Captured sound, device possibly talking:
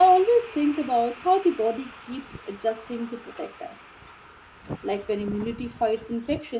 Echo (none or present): none